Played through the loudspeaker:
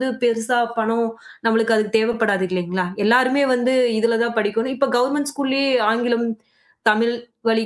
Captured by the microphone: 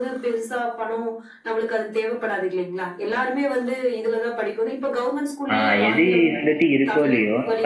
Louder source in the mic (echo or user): user